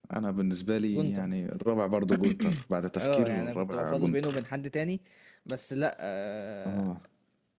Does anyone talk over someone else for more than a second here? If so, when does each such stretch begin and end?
3.0-4.4

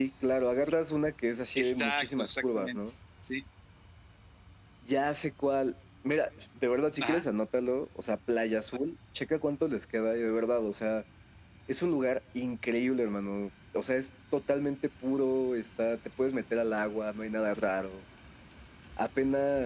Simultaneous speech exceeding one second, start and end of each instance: 1.6-2.8

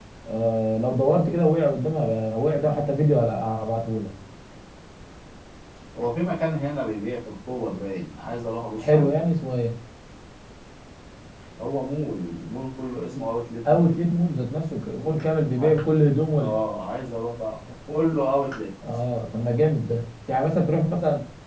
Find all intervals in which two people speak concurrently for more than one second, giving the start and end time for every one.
none

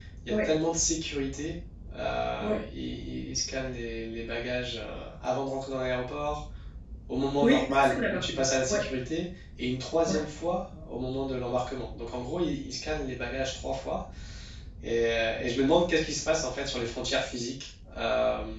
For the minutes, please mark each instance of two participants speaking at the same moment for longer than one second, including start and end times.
7.4-8.8

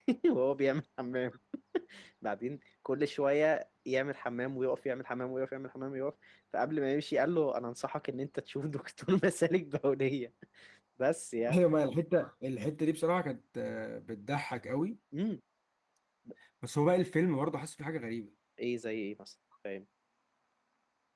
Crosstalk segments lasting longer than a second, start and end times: none

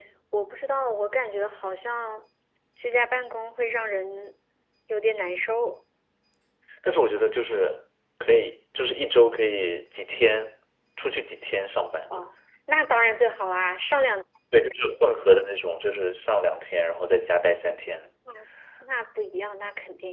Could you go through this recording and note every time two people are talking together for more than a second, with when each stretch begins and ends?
none

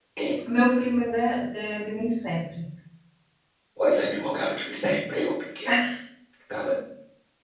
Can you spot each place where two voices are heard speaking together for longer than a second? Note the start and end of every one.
none

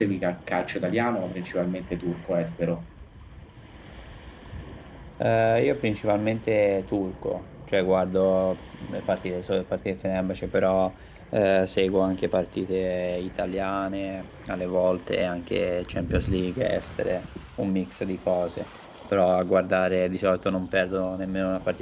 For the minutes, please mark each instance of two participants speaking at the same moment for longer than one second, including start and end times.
none

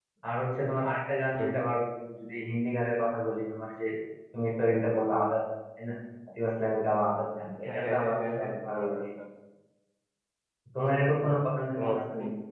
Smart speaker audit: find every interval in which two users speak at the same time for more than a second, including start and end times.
7.6-9.0

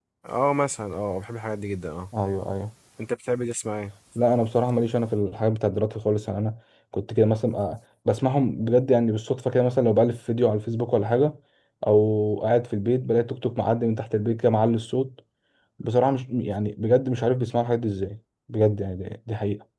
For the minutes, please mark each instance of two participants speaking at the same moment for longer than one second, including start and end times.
none

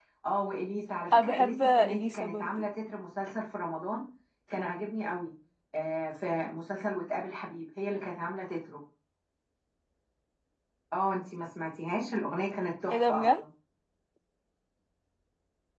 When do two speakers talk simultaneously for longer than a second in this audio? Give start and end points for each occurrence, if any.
1.1-2.7

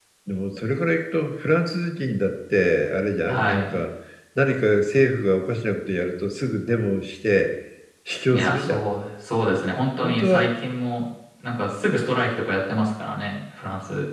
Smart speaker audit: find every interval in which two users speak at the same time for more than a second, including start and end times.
none

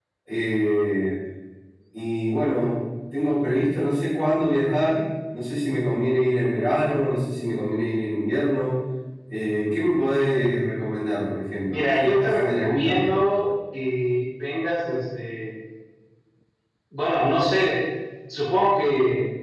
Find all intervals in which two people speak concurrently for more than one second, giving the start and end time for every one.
11.7-13.2

